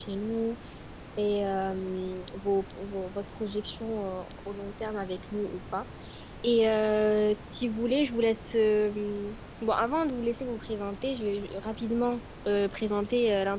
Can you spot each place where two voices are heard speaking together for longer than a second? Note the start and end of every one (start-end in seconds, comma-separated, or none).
none